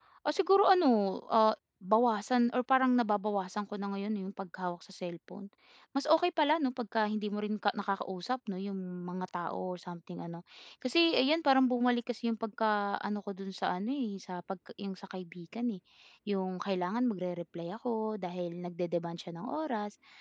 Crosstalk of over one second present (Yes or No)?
No